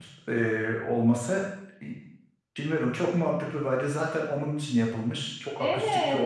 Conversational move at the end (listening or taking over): taking over